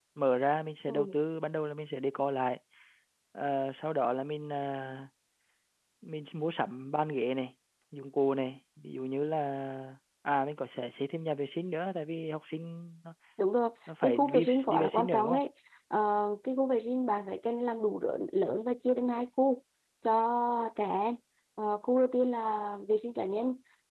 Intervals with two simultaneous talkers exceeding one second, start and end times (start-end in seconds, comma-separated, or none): 14.0-15.4